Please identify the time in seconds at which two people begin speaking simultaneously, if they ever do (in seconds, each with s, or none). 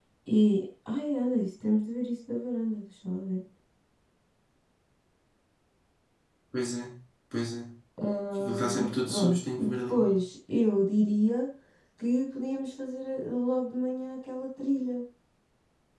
8.4 s